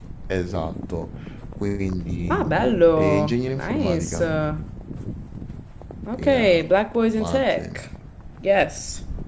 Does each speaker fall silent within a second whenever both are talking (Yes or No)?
No